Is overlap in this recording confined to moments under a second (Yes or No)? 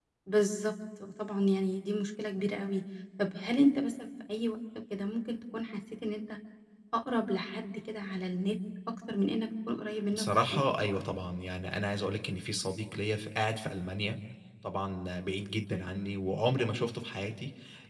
Yes